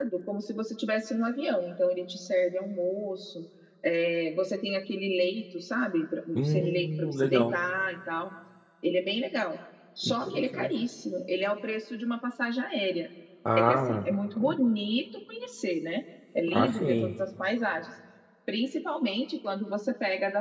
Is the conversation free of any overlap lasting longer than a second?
No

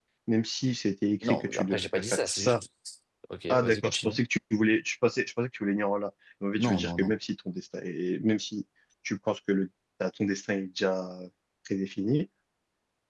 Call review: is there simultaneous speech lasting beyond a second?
Yes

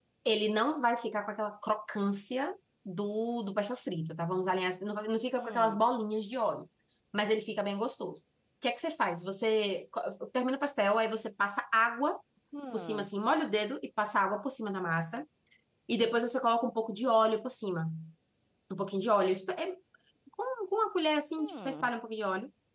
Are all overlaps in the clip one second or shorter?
Yes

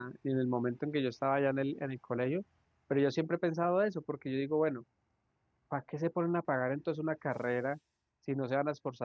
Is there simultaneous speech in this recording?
No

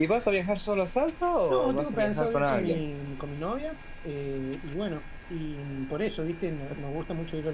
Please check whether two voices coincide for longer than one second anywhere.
Yes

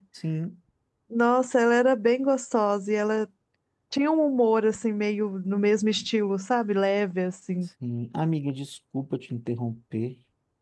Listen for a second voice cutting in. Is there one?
No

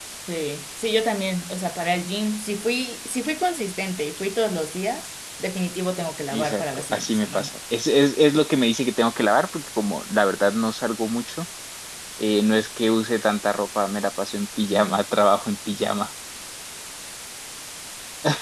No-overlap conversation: No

